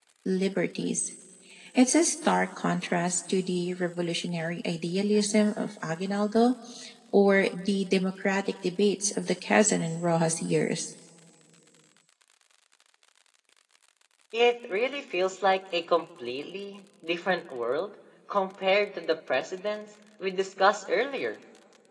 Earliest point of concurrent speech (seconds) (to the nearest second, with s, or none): none